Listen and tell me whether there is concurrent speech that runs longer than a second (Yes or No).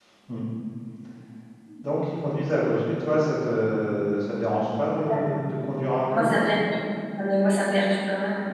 No